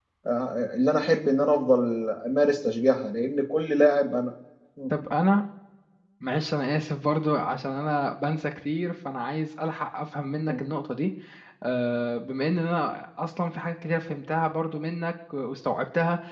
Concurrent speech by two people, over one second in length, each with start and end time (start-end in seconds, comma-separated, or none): none